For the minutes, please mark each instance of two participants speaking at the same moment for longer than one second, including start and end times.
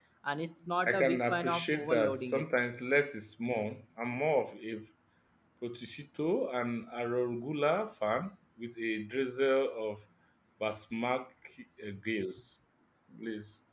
0.9-2.5

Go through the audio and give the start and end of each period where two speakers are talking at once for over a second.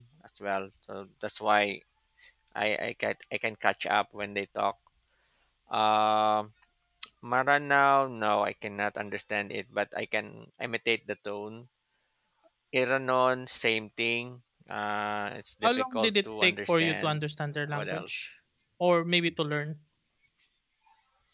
15.9-17.2

